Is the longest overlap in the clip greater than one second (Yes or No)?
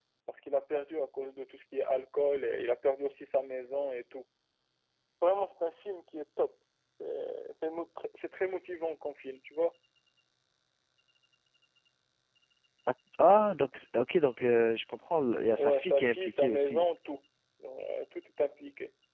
Yes